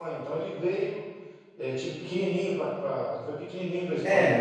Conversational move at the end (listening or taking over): taking over